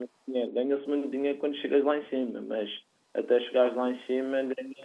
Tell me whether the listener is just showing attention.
Yes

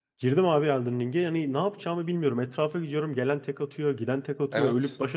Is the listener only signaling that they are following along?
Yes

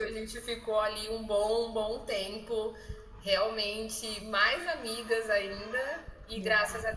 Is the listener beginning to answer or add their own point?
No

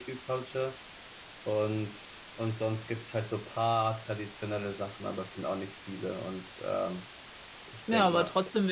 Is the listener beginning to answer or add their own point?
Yes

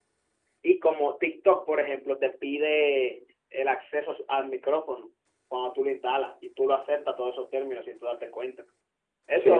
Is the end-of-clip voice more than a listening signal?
Yes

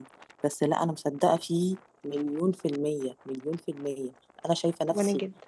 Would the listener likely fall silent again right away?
Yes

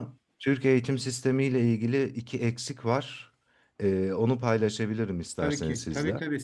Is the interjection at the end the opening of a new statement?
Yes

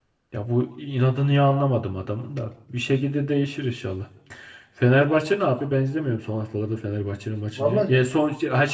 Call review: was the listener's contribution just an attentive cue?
Yes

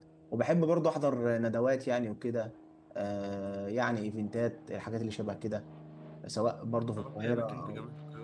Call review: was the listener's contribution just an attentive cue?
No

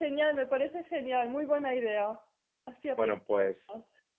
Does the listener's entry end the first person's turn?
Yes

